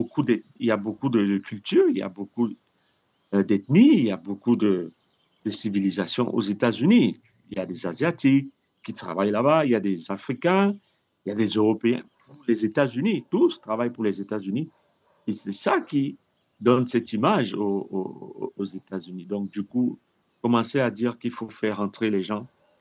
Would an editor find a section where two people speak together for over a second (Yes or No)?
No